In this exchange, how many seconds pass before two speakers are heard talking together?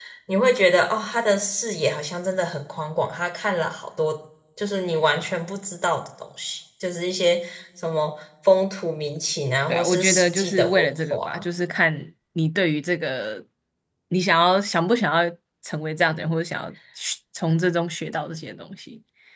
10 s

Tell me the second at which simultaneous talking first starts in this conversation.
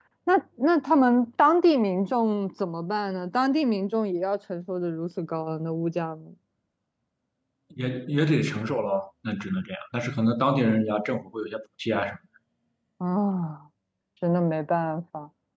none

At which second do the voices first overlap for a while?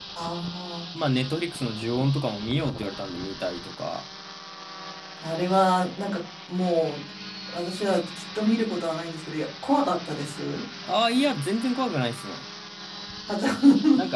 none

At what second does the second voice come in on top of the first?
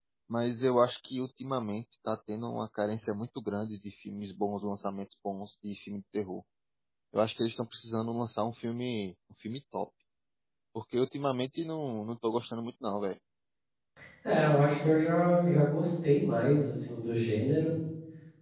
none

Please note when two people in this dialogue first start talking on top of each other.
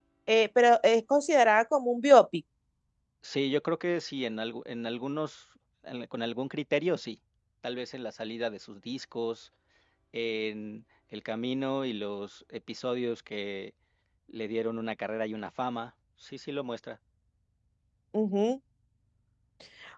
none

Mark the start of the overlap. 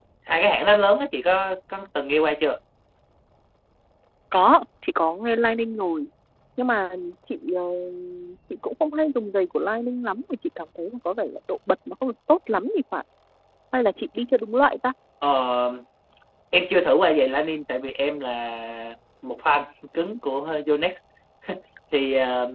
none

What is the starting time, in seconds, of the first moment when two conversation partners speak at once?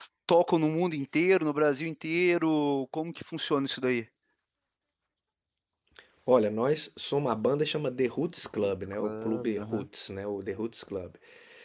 8 s

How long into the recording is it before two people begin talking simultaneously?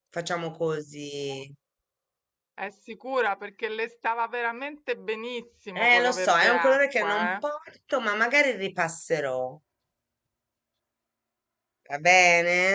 6 s

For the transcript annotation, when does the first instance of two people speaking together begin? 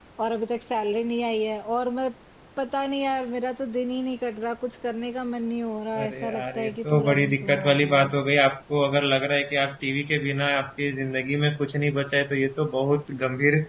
6 s

